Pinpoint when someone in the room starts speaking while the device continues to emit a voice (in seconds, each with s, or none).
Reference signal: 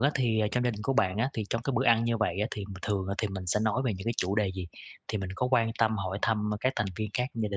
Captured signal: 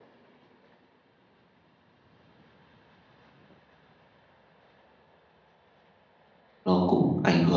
6.6 s